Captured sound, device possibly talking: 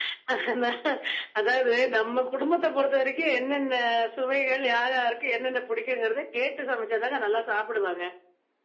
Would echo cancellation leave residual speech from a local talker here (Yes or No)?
No